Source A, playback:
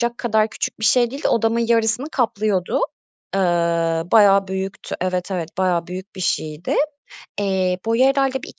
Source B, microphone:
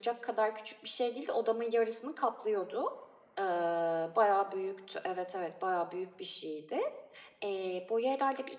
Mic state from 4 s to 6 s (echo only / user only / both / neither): echo only